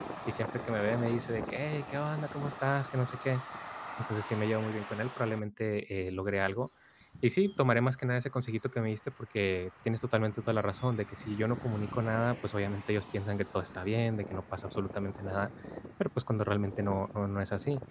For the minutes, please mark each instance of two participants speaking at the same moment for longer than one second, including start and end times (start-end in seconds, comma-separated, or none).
none